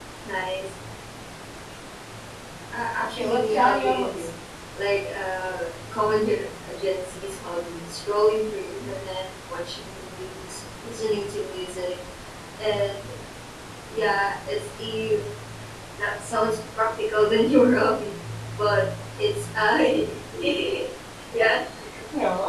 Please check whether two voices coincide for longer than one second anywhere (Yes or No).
Yes